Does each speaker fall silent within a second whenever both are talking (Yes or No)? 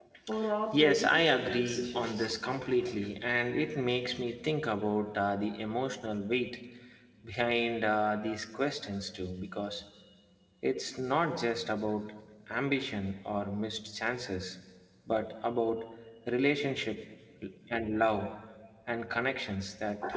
No